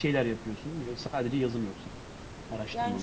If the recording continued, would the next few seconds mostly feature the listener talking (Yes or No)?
Yes